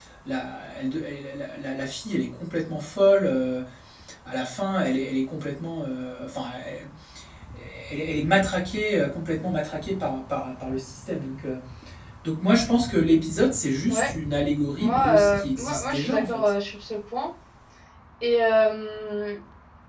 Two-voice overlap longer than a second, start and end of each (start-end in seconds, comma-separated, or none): 14.8-16.5